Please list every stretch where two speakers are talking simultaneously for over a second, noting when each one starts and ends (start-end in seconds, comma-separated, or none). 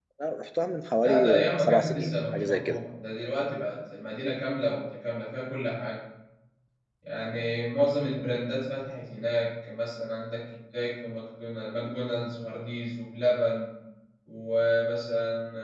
1.0-2.8